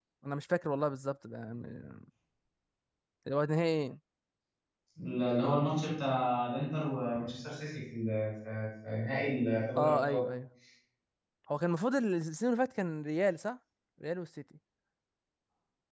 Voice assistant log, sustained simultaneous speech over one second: none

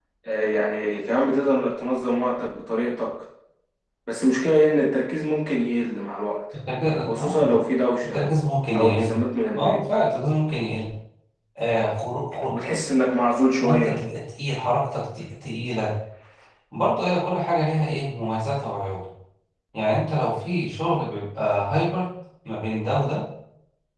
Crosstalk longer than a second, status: none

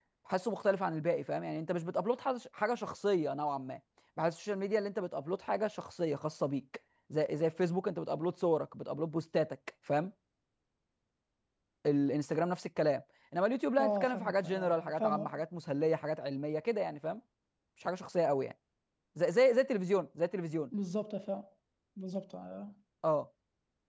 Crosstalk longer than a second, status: present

